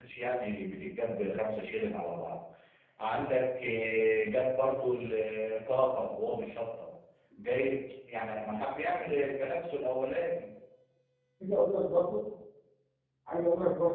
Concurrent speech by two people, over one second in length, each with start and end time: none

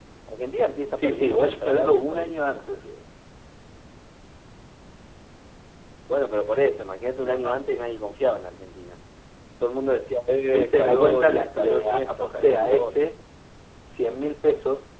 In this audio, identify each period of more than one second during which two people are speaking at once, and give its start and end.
1.0-2.9, 10.5-13.1

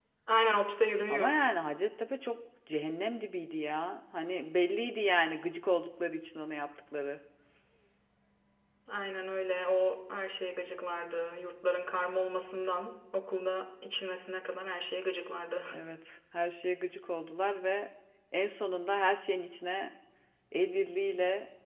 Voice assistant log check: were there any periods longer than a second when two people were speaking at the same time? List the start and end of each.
none

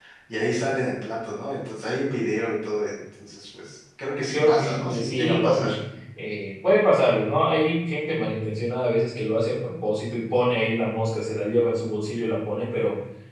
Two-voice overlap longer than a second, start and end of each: 4.3-5.7

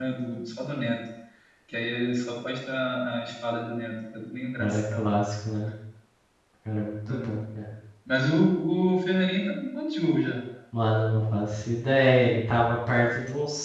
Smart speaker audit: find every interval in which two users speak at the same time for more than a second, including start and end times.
none

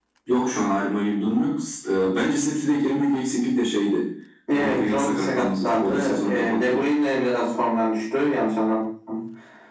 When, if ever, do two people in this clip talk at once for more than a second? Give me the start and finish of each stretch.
4.5-6.9

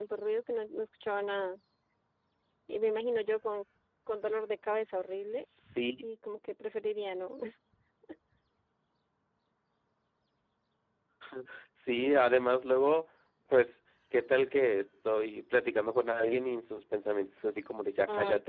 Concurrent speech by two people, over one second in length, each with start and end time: none

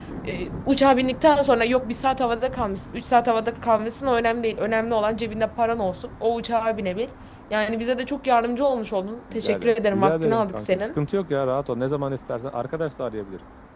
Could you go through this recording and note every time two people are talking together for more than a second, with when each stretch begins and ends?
9.3-10.9

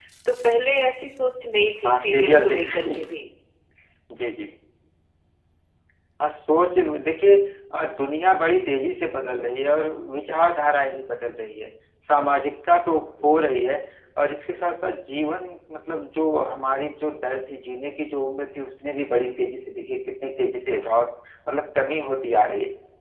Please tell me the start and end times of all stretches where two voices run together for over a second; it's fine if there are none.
1.8-3.1

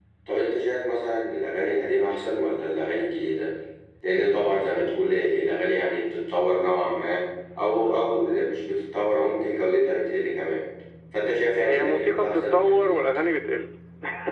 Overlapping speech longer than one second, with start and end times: 11.6-13.0

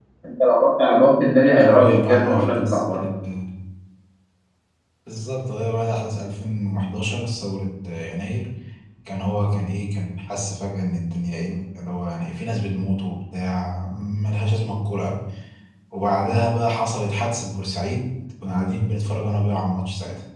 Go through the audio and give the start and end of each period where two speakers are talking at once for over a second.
1.6-3.0

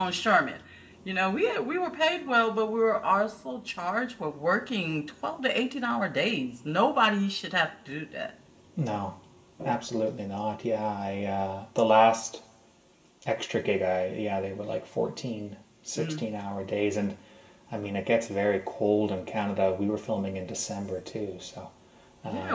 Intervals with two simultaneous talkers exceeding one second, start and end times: none

